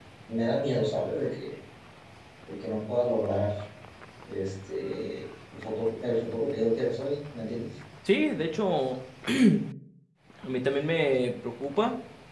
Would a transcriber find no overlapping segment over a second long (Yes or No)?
Yes